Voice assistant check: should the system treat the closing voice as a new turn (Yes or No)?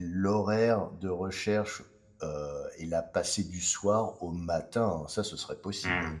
Yes